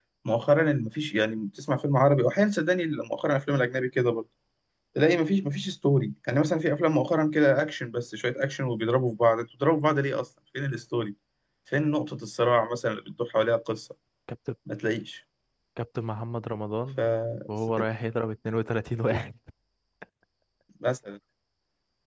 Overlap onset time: none

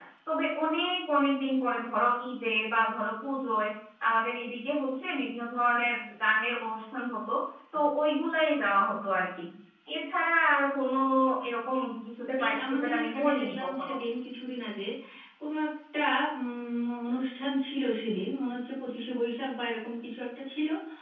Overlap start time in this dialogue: 12.4 s

